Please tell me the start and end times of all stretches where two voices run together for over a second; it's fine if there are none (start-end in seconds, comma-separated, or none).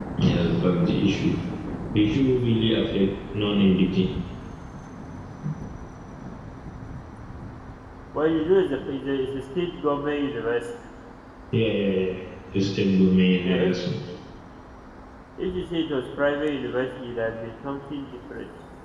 none